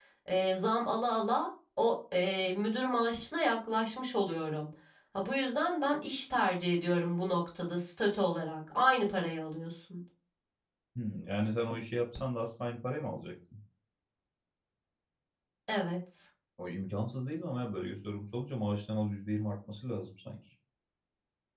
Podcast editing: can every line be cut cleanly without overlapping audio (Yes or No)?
Yes